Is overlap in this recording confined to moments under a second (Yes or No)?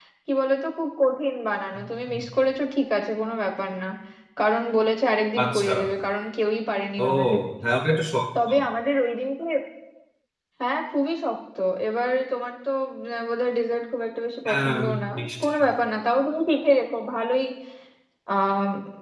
Yes